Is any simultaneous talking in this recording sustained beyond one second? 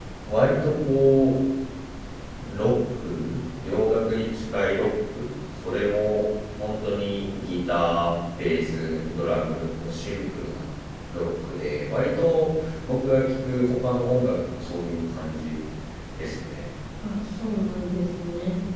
No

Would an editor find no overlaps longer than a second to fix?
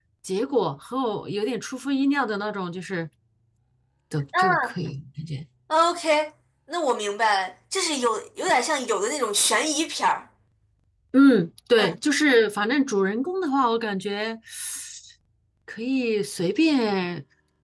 Yes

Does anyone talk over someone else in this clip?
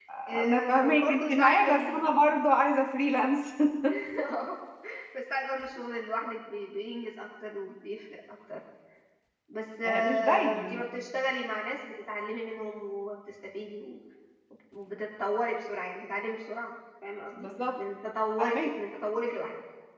Yes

